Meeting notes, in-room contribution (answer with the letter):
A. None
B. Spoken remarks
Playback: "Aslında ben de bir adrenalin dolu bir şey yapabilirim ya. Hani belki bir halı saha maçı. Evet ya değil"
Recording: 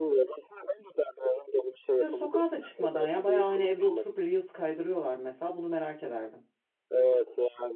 B